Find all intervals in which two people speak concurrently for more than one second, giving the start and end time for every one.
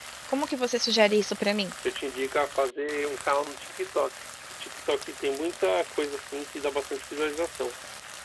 none

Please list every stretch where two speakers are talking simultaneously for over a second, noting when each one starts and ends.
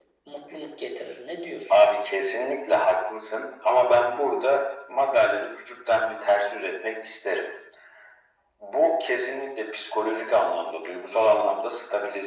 none

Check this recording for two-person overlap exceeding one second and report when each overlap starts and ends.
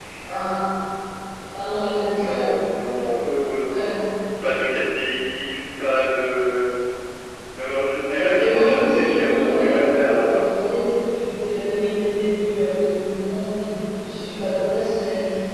8.0-10.4

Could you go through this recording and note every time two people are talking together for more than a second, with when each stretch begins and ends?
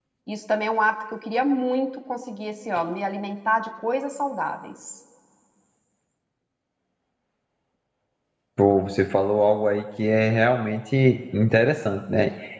none

